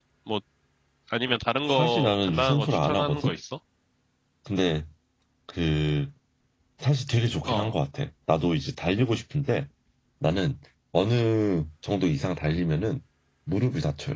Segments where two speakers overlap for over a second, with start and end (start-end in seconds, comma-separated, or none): 1.8-3.2